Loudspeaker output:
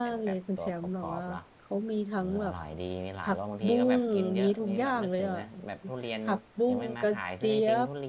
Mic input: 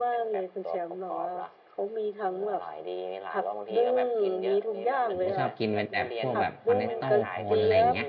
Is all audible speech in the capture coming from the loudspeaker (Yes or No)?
No